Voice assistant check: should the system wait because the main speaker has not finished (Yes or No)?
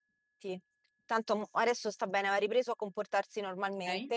Yes